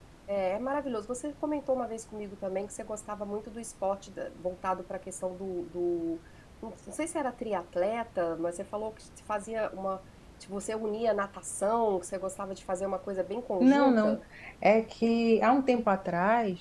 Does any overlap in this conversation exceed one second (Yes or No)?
No